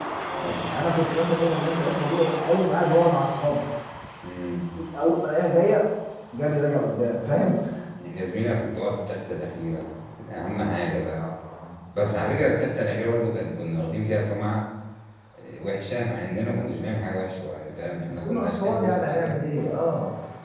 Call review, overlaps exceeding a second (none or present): present